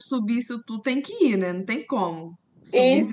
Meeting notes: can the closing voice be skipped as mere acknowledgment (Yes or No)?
No